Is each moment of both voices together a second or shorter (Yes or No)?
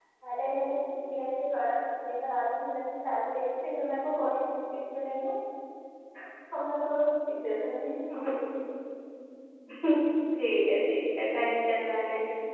Yes